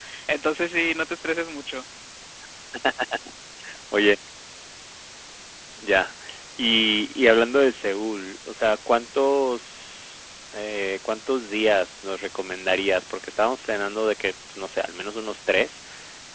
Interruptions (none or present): none